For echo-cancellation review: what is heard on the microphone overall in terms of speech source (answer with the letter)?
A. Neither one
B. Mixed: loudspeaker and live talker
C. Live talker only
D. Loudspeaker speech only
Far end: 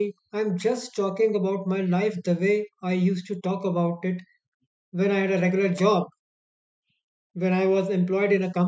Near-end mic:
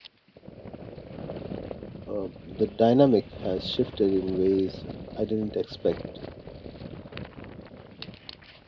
C